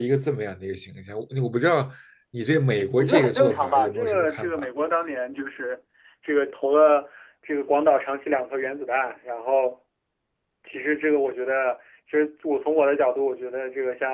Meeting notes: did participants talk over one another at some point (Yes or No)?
Yes